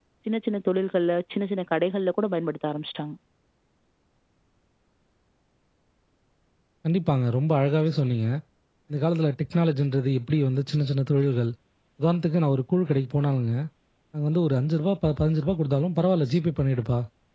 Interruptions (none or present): none